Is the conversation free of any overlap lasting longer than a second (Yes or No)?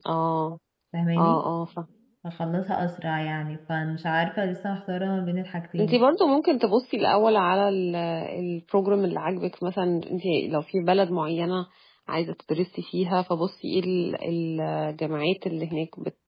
Yes